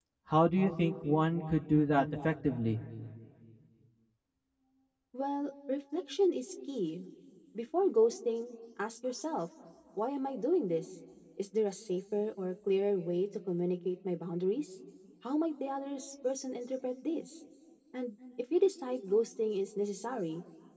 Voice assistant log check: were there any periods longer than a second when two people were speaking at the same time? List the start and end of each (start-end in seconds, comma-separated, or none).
none